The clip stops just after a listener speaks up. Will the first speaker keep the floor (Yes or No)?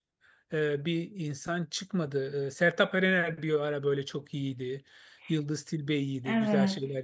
Yes